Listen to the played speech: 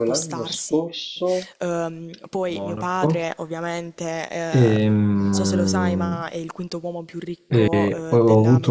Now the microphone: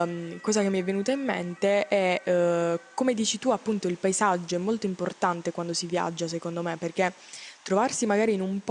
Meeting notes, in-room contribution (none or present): present